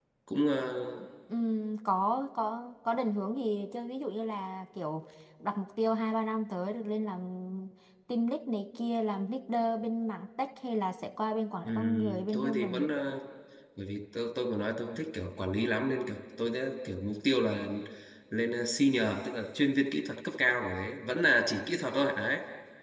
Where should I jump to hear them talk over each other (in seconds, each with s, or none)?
11.6 s